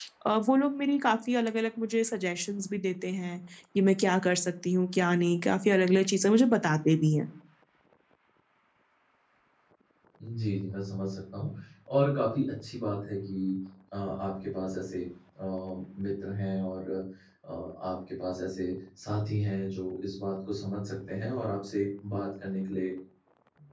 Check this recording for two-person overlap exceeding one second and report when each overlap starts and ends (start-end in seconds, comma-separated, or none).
none